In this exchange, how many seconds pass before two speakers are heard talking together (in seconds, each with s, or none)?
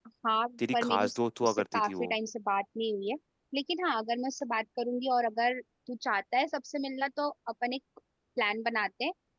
0.7 s